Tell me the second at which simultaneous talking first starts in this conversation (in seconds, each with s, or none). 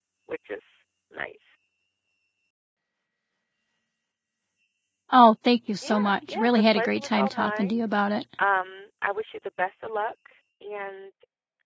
5.8 s